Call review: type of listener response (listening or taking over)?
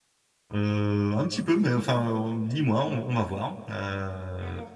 taking over